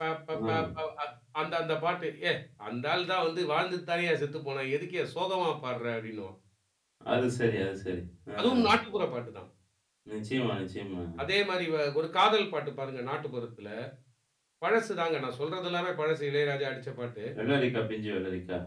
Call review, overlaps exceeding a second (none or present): none